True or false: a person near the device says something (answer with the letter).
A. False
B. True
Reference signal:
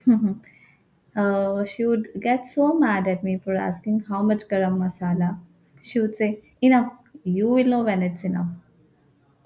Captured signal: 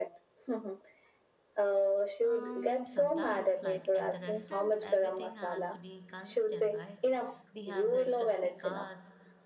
B